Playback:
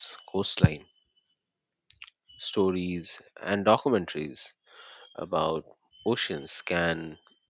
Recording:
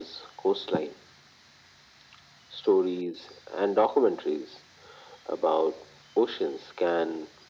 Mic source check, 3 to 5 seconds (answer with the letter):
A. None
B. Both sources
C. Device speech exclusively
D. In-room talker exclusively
C